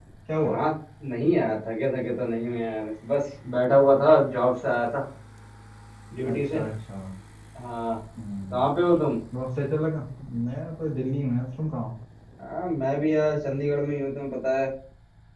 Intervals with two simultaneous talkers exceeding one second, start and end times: none

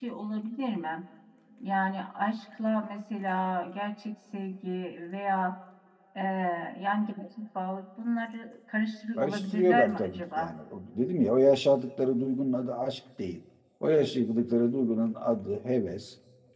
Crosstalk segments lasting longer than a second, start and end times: 9.2-10.6

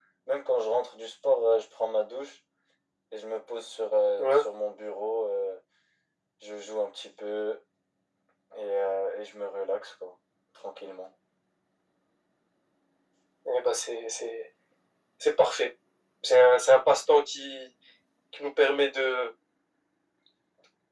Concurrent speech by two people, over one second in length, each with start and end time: none

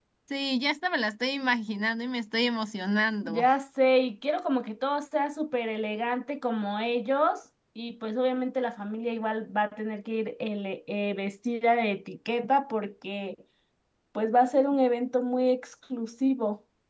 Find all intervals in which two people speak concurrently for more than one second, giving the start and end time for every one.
none

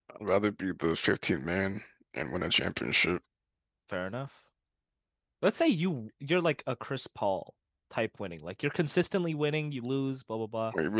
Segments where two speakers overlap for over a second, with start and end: none

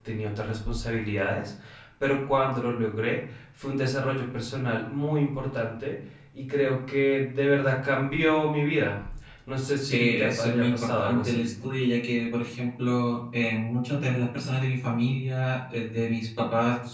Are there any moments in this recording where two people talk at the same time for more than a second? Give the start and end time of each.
9.8-11.5

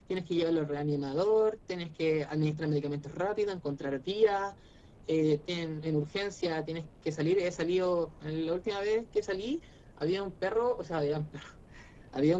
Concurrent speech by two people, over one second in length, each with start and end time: none

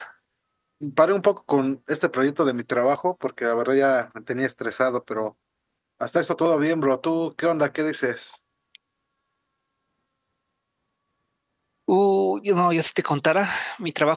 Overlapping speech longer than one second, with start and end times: none

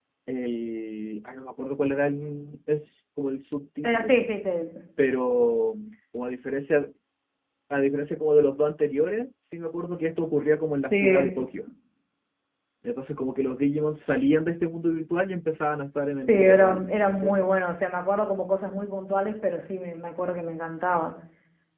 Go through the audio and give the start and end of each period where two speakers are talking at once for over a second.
16.3-17.6

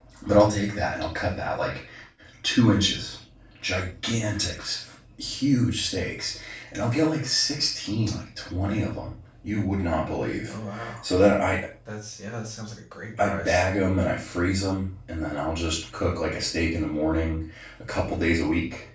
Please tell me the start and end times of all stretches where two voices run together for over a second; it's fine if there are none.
none

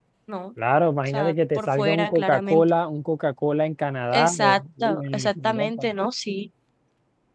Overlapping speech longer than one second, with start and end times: 1.1-2.6, 4.1-5.9

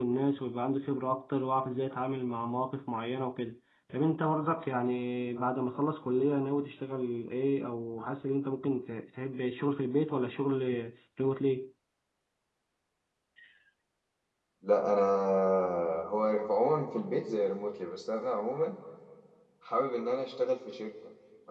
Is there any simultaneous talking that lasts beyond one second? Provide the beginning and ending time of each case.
none

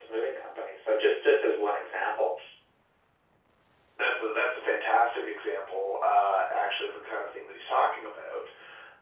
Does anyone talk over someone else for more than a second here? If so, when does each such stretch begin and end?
none

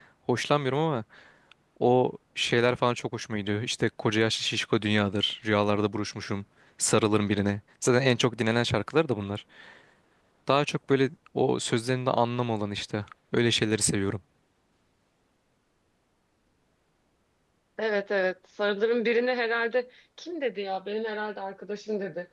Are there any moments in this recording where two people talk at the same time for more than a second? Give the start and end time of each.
none

